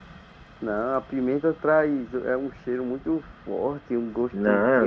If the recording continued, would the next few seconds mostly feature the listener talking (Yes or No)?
Yes